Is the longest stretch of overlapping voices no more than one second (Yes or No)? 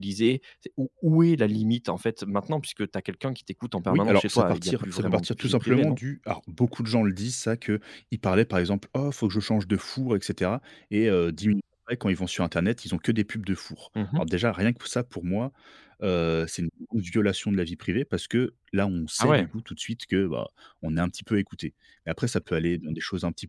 No